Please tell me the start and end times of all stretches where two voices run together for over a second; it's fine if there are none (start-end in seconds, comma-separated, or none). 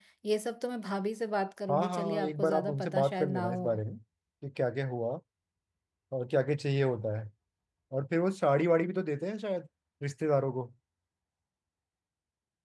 1.7-3.7